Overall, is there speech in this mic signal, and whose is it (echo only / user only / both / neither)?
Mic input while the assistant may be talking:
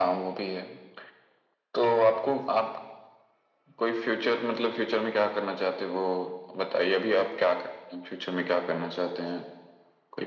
echo only